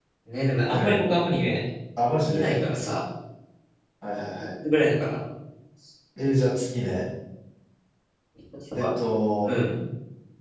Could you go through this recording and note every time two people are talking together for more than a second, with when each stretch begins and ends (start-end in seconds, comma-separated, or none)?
none